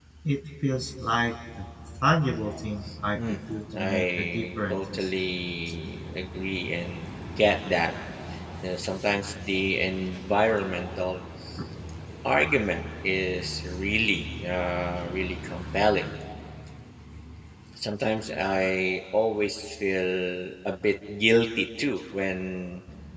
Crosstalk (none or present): present